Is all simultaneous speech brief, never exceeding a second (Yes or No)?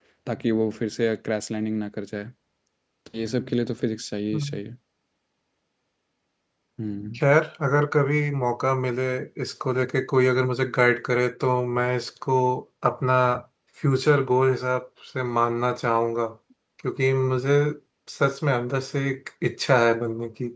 Yes